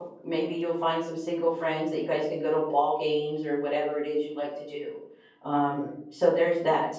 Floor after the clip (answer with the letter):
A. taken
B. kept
B